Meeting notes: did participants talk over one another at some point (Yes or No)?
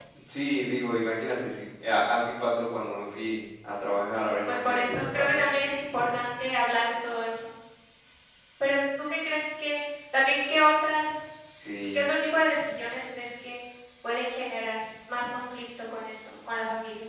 Yes